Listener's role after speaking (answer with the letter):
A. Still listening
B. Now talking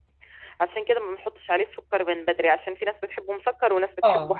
B